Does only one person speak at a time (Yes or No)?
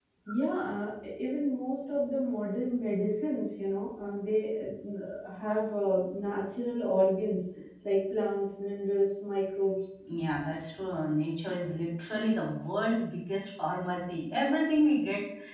Yes